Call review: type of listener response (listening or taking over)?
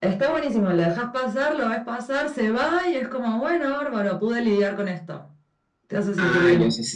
taking over